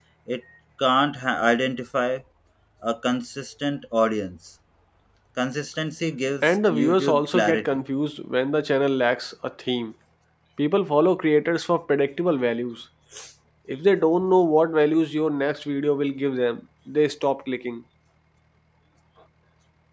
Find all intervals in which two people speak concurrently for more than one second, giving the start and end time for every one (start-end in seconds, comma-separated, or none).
6.4-7.8